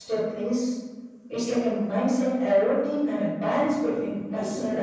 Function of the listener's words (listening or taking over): taking over